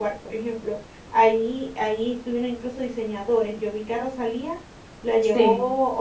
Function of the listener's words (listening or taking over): listening